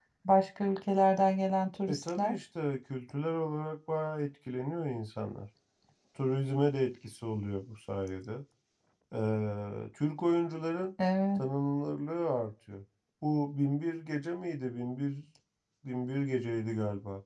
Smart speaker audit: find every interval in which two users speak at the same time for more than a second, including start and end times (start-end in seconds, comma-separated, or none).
none